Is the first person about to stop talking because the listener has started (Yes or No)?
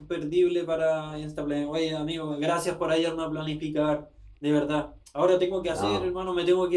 No